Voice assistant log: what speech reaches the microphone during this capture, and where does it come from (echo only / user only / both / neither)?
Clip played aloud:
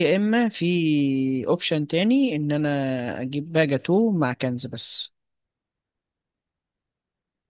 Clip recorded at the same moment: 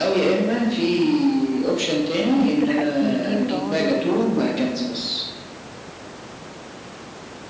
both